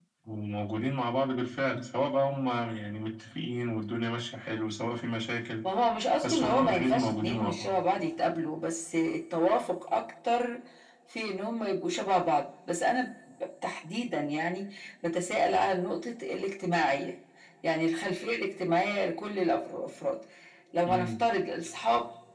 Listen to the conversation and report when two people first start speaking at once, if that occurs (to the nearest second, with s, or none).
6 s